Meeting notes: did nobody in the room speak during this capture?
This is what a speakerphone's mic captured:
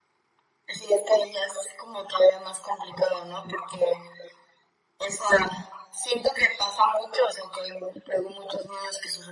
Yes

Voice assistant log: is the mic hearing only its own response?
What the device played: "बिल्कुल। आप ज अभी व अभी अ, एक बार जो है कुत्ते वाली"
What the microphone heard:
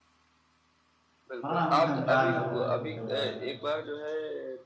No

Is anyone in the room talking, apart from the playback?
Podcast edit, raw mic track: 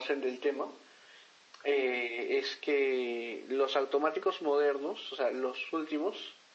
No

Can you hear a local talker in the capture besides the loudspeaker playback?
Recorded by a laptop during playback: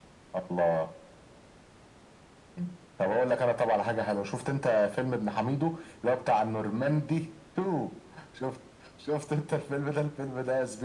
No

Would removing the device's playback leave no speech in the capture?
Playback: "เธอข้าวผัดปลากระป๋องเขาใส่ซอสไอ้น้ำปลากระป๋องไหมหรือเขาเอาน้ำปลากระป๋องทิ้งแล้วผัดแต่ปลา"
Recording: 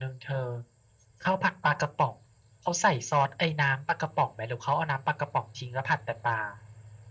Yes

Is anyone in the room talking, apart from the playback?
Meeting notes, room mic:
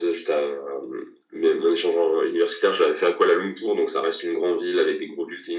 No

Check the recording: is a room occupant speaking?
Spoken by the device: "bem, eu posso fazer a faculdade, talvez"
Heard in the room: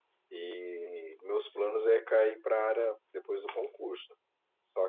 Yes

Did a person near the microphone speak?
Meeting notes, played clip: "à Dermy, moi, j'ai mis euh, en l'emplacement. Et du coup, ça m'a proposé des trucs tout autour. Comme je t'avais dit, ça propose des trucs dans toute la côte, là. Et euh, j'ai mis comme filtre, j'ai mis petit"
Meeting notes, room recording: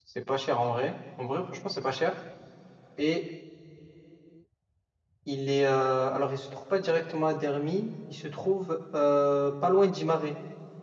Yes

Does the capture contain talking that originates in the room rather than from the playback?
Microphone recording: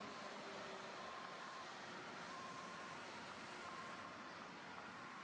No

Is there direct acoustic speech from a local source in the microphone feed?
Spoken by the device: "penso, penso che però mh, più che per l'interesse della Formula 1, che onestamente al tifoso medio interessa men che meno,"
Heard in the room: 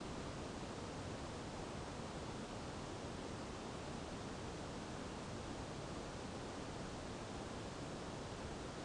No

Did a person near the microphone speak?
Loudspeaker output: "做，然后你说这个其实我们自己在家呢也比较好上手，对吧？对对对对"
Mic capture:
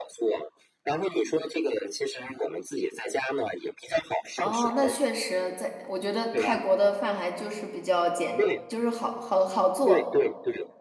Yes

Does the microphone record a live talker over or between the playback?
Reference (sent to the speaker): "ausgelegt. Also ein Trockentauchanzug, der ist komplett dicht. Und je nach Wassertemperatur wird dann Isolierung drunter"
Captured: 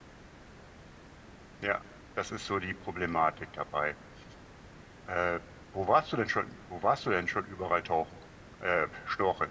Yes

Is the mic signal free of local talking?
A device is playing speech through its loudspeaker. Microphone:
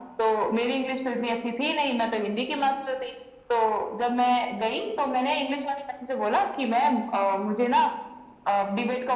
Yes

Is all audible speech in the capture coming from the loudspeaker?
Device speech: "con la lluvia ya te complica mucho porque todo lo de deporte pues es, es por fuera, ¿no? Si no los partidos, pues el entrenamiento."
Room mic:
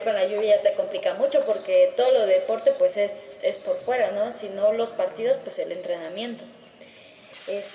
Yes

